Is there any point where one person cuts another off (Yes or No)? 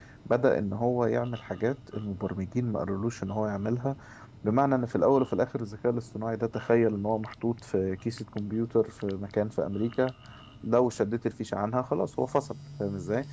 No